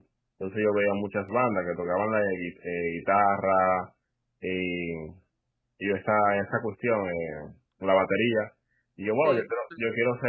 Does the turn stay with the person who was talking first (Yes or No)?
Yes